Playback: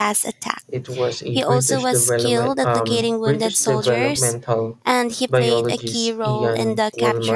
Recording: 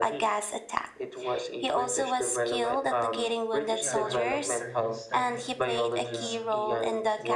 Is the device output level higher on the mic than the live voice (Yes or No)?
Yes